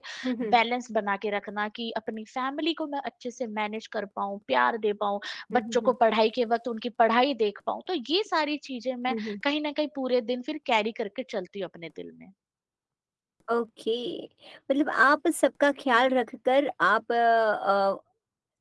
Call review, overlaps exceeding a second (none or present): none